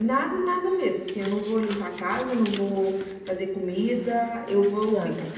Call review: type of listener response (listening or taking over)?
listening